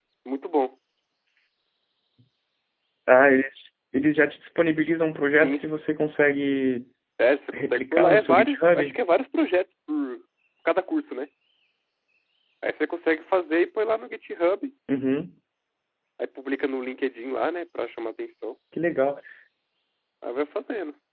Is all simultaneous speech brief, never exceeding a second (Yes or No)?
No